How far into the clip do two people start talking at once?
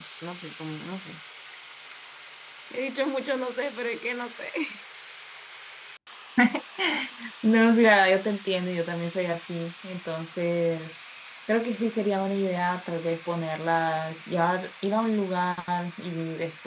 none

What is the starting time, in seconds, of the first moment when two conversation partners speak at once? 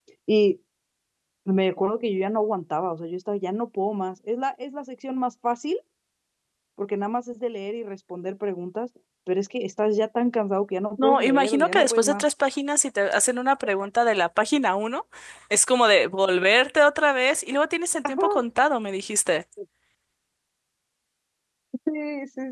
11 s

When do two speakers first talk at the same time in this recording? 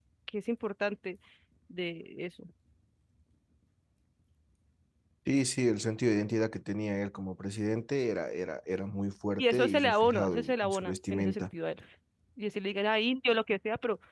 9 s

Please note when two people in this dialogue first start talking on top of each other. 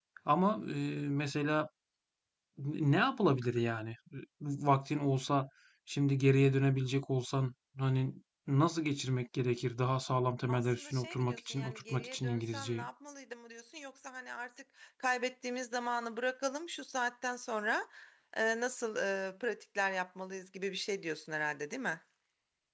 10 s

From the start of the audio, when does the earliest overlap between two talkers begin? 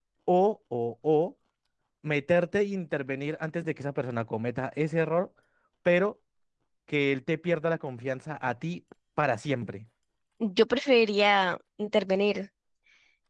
none

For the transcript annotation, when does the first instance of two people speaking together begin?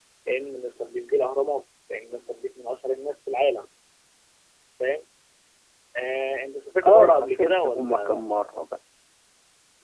7 s

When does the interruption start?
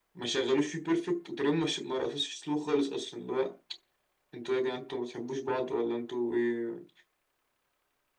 none

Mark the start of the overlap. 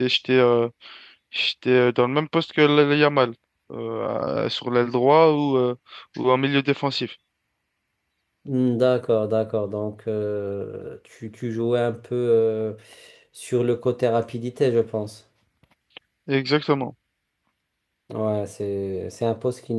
none

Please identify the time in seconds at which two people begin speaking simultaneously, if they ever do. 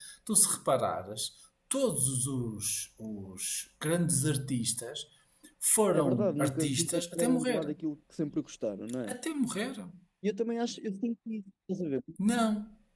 6 s

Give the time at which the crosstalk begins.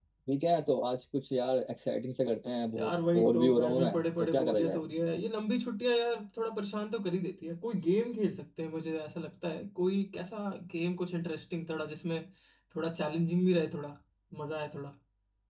3 s

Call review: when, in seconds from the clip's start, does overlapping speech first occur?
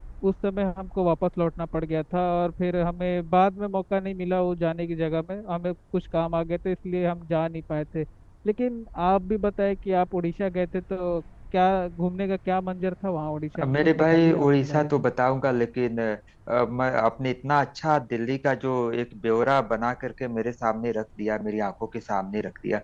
14 s

